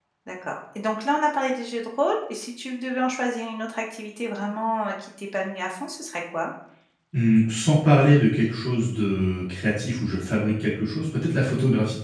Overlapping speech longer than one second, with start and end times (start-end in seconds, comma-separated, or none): none